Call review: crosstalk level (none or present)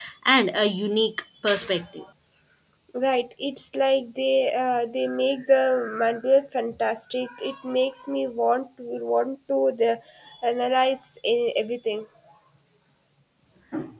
none